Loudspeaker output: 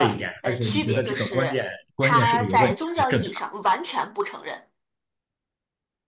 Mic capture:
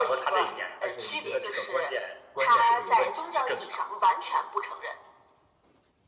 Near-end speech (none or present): none